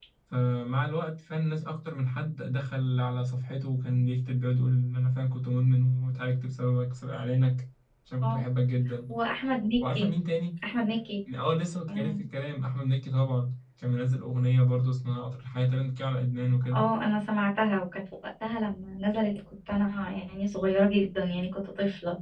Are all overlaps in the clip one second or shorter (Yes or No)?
Yes